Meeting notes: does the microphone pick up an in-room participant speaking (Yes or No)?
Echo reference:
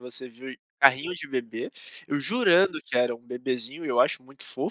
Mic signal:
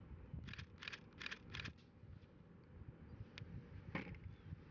No